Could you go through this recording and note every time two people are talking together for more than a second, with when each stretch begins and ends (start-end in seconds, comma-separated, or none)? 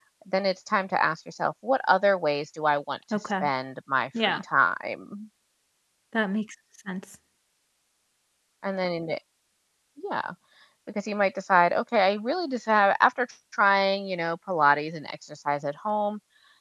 none